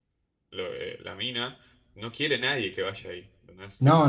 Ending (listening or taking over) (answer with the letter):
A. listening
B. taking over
B